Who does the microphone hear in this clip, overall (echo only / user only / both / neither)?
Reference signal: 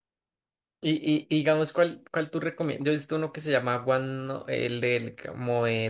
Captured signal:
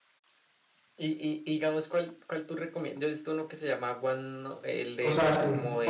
both